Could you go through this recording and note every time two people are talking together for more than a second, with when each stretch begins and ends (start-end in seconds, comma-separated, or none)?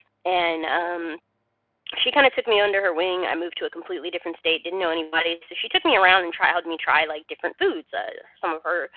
none